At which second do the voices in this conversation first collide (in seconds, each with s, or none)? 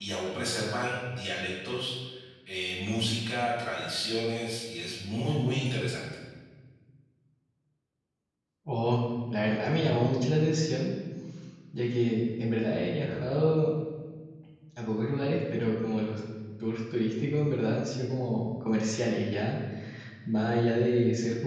none